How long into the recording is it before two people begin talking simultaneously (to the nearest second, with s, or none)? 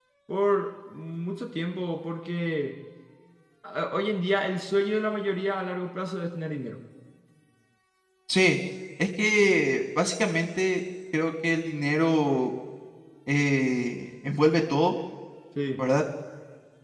none